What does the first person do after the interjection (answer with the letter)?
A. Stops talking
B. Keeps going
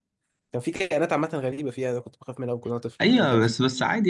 A